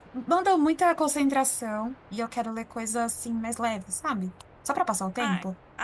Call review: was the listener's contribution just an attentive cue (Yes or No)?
No